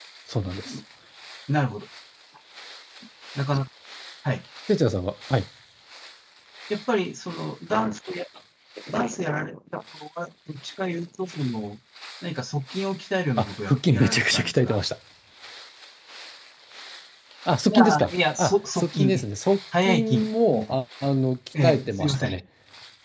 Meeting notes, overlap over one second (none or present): present